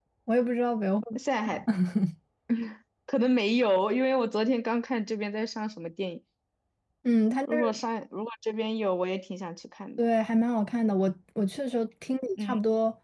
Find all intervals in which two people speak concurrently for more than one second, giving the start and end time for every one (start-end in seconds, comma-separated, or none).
none